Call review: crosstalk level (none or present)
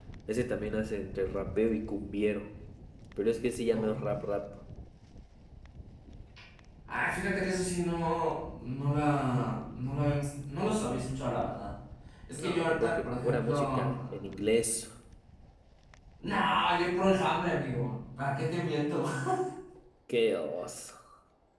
present